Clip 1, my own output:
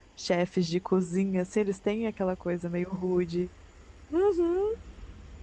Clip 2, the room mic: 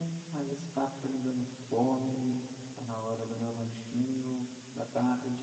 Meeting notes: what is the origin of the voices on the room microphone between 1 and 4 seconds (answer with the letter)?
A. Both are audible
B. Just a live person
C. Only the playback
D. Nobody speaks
B